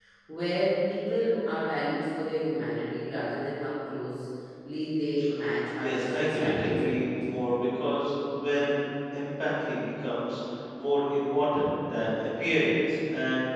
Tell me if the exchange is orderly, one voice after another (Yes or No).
No